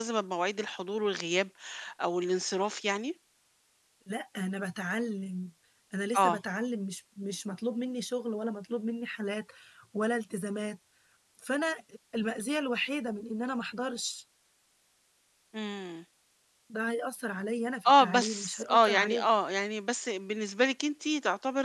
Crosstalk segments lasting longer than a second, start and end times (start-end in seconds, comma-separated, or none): 17.9-19.2